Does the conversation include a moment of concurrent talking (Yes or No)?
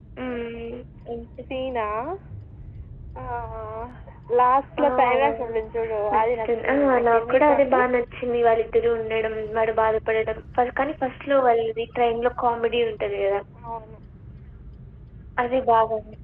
Yes